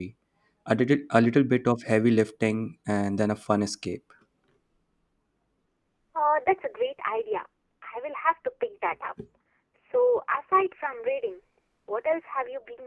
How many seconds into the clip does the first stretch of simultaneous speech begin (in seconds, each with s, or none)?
none